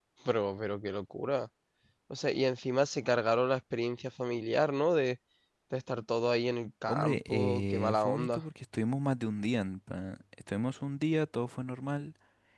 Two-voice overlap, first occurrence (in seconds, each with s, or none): 6.9 s